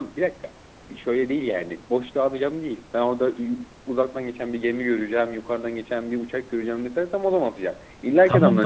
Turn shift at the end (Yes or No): Yes